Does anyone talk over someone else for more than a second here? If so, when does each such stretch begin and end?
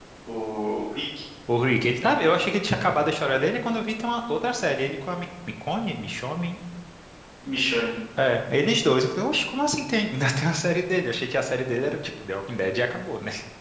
none

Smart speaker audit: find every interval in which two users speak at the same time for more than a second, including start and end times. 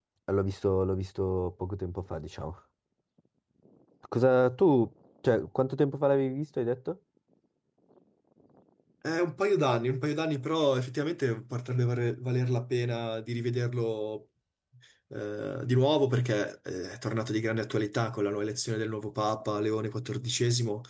none

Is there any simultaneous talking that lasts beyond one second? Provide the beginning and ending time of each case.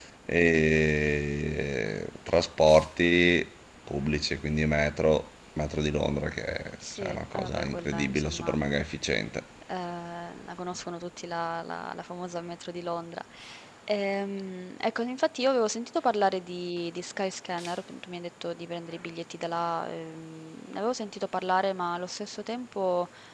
7.0-8.6

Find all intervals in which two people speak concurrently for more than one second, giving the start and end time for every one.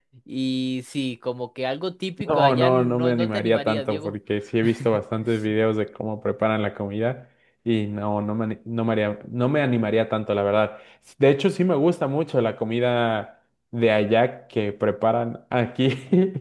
2.3-4.1

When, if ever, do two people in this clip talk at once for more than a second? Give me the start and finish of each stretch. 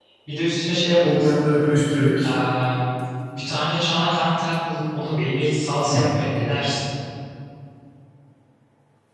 none

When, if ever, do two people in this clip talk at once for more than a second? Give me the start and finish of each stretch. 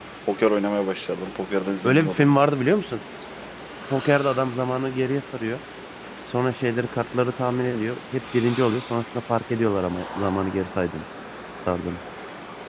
none

